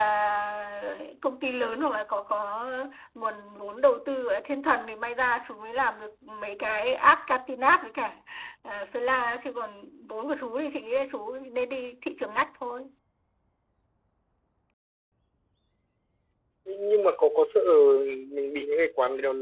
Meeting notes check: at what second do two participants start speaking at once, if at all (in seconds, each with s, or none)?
none